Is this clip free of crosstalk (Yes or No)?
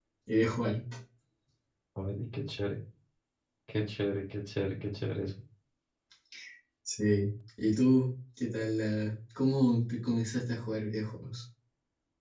Yes